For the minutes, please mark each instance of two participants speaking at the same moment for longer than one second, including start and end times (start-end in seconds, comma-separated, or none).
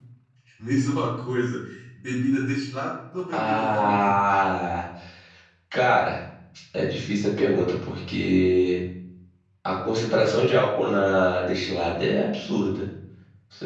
3.3-4.7